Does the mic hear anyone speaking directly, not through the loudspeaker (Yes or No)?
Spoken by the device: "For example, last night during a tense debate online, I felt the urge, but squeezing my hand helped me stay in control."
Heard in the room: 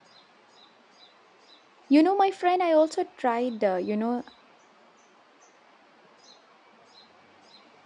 Yes